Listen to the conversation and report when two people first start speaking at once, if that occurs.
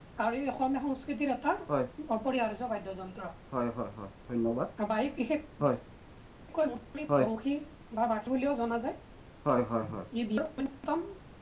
none

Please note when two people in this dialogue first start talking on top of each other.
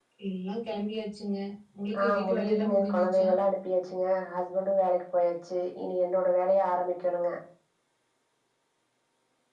2.0 s

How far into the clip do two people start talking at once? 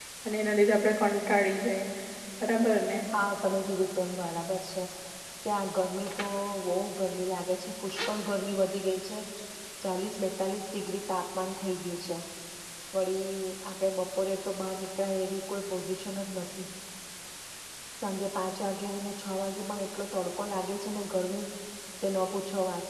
none

